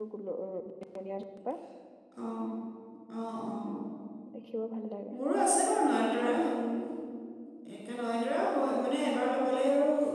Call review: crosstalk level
none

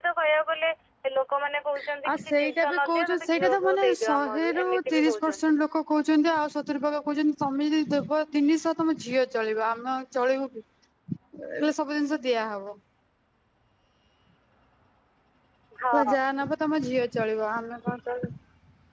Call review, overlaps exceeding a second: present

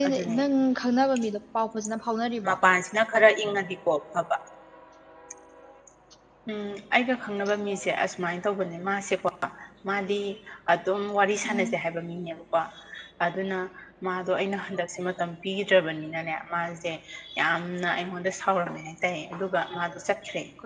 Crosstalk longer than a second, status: none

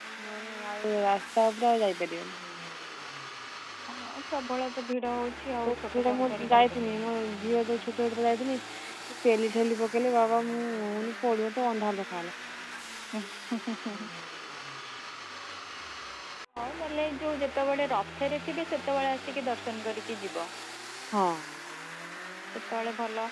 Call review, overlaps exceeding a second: present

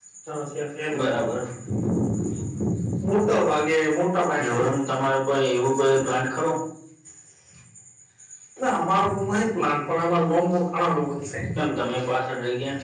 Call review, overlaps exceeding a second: none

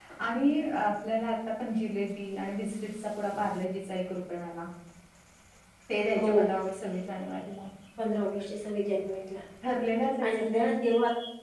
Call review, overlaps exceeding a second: none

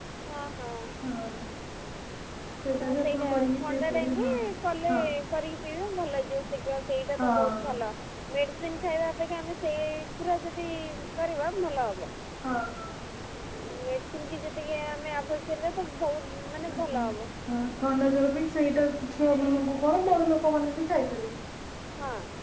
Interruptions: present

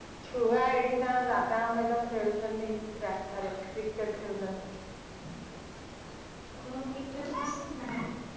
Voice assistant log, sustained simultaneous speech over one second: none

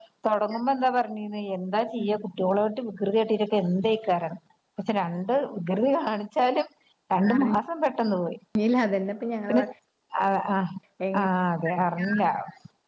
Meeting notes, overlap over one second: none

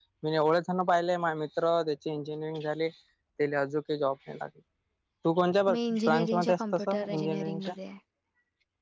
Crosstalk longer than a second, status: present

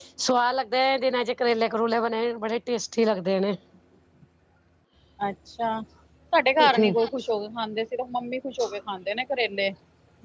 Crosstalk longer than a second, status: none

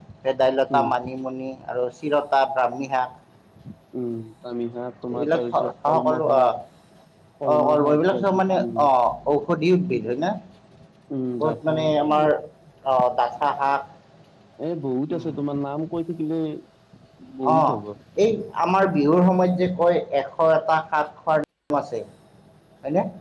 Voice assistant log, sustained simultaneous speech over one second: present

